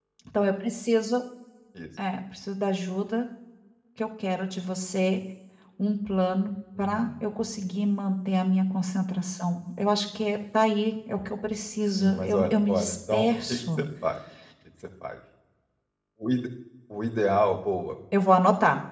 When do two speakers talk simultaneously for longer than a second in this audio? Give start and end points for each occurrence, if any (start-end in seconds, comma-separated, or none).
12.0-13.8